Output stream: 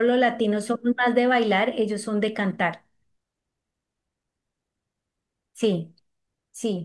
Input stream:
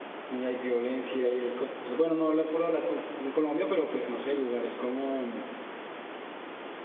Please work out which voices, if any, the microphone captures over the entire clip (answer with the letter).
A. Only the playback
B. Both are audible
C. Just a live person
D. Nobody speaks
C